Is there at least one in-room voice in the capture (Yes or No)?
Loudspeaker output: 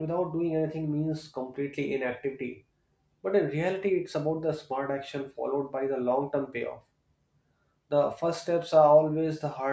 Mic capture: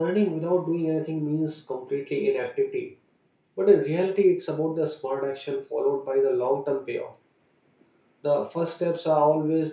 No